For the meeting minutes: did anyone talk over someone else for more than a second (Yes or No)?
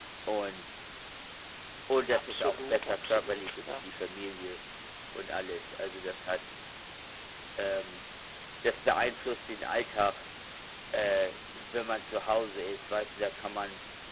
Yes